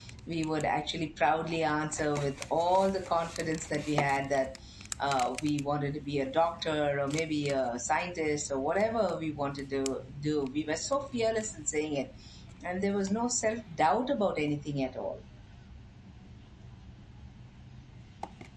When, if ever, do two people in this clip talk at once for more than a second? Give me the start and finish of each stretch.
none

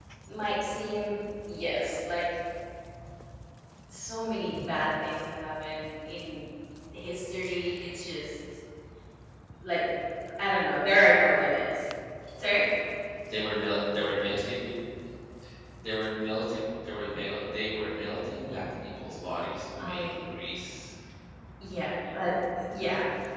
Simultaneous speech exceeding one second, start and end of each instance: none

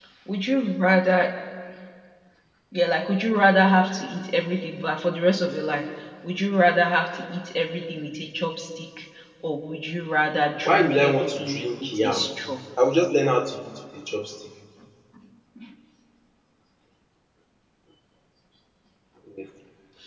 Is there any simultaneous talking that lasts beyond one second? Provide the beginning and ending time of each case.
10.7-12.3

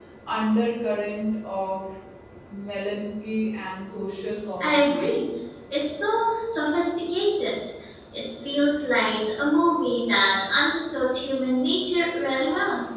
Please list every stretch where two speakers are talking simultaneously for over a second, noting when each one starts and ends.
none

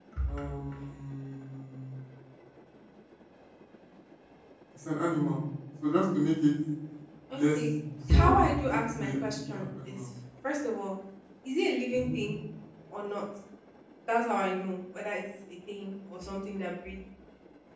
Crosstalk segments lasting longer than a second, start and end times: 8.1-10.0

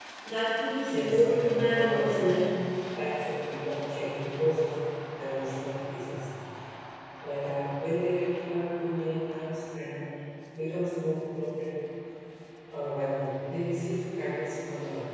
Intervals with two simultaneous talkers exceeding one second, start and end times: 0.9-2.3

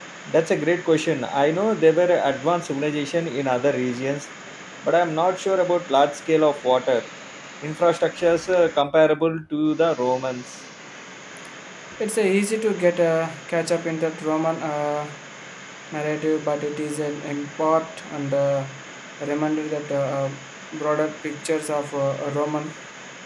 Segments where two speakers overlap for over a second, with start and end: none

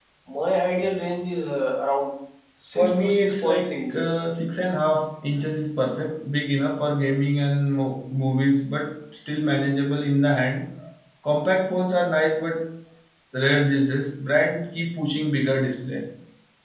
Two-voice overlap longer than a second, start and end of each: 2.8-4.1

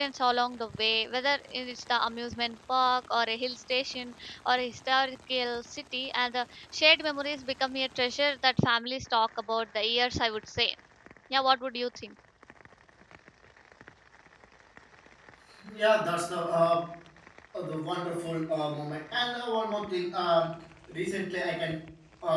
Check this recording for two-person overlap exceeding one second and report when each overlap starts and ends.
none

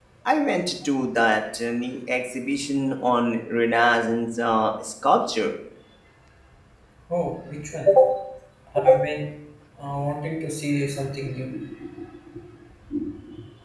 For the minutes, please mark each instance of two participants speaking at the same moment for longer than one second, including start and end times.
none

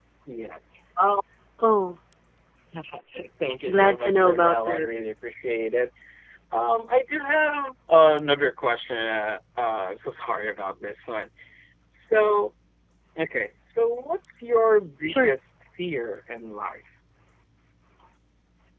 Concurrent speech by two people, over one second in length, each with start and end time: 3.7-4.9

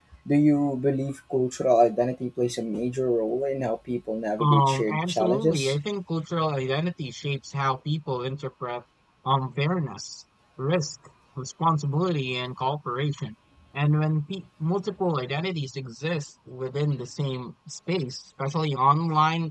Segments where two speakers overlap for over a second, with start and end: 4.4-5.7

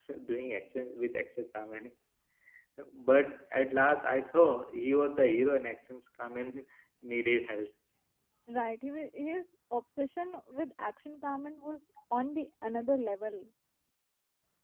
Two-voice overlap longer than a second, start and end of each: none

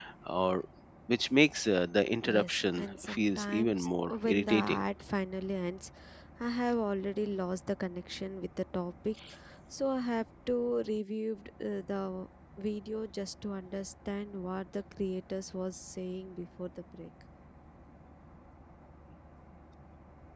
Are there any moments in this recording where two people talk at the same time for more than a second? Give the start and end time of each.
2.3-4.8

